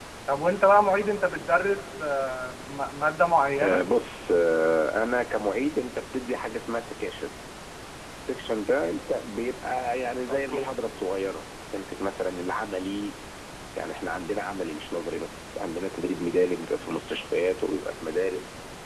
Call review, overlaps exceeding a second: none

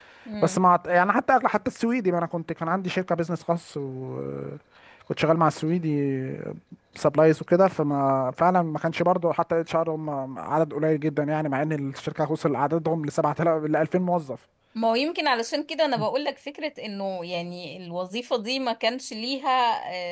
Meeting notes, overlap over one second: none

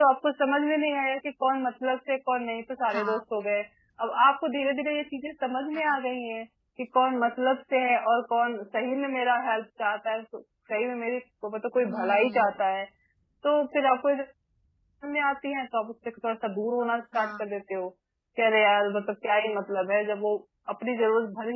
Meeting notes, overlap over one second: none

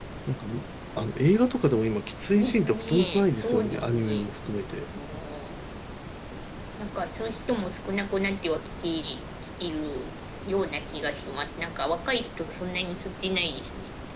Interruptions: present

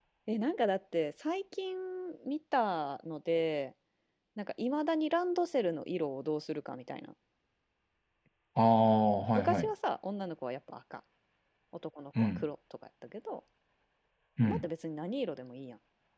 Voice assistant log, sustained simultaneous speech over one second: none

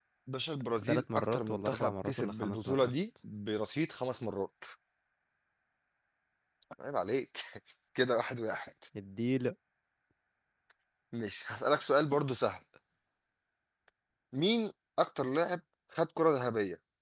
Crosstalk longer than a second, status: present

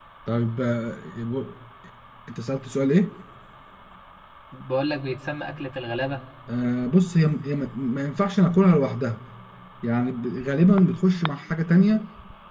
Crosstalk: none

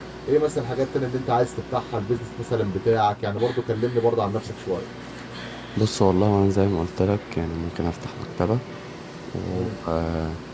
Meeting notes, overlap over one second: none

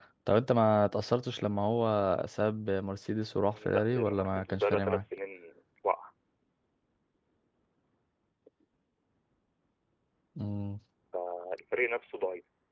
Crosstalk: present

